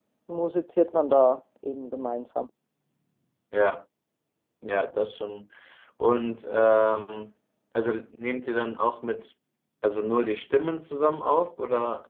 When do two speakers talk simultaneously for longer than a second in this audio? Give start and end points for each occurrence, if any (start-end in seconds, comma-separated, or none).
none